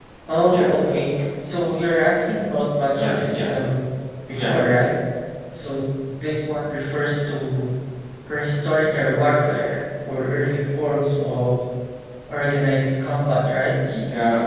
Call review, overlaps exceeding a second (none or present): none